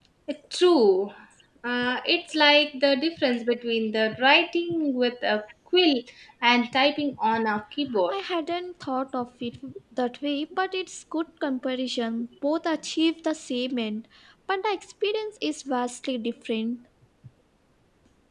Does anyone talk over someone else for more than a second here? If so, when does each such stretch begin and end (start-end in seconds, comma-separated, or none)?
none